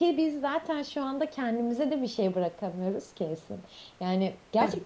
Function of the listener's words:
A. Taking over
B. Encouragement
B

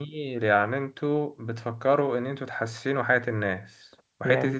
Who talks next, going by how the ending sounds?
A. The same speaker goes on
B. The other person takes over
A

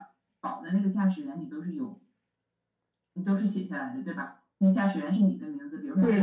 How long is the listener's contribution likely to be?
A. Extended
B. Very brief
A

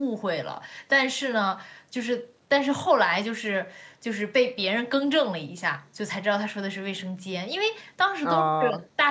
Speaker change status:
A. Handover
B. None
B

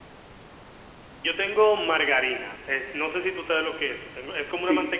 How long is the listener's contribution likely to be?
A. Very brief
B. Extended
A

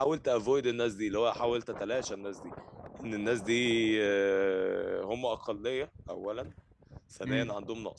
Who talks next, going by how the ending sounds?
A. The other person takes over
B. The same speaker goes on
B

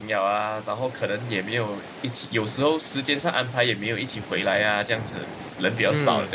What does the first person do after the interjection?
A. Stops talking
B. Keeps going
A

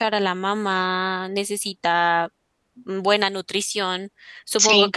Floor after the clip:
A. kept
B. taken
A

